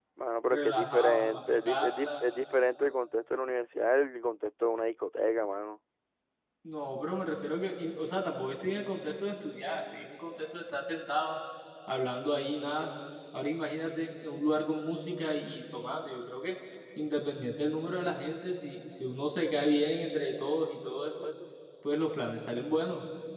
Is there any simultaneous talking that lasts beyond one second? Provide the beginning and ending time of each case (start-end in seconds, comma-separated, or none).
0.5-2.2